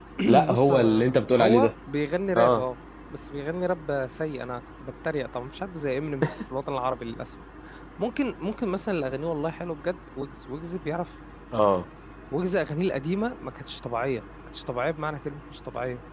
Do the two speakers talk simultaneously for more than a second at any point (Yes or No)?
Yes